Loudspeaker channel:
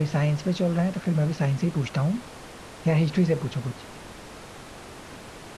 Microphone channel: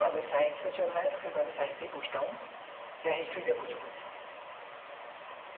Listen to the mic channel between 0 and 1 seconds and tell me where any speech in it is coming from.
echo only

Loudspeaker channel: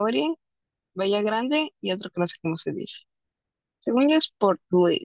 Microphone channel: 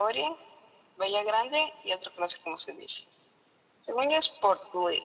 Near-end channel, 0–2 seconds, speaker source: echo only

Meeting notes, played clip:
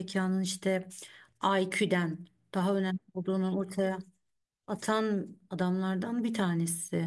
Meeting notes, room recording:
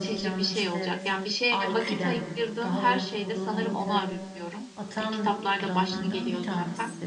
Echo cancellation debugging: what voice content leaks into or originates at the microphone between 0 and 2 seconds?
both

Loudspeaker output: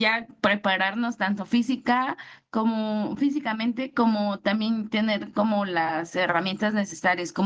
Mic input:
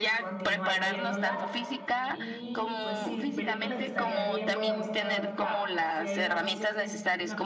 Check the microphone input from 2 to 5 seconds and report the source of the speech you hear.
both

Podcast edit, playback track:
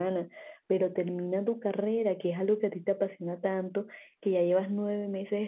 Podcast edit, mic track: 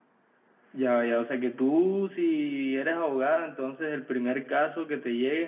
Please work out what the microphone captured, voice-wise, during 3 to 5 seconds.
user only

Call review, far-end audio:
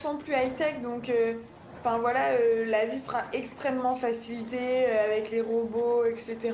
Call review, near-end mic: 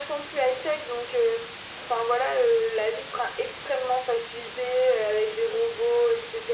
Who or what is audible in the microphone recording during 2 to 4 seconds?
echo only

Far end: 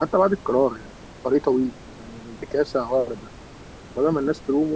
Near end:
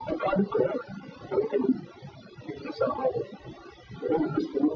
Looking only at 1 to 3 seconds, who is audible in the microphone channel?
echo only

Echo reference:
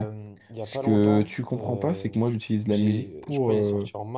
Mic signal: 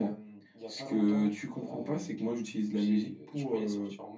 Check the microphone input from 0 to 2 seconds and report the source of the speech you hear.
echo only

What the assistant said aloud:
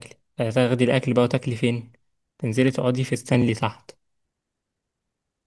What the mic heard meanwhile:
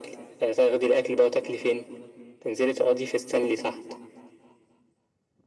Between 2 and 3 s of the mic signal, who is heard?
echo only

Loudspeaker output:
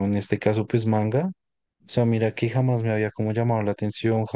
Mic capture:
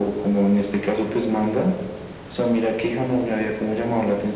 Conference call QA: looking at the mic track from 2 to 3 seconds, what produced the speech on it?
echo only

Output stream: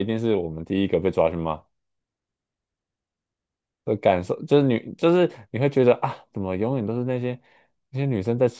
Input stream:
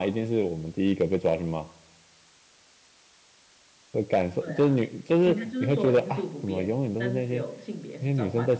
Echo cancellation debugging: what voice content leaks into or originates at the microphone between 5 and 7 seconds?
both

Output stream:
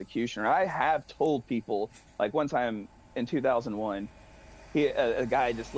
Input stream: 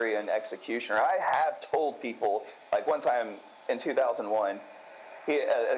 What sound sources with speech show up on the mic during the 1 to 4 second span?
echo only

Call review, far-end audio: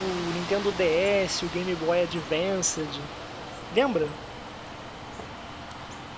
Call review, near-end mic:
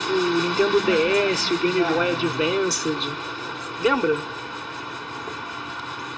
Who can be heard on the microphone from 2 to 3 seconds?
both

